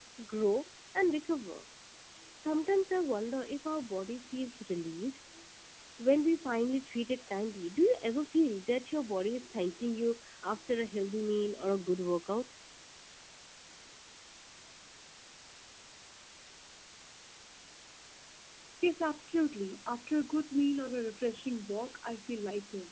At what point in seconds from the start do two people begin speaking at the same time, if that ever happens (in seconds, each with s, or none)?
none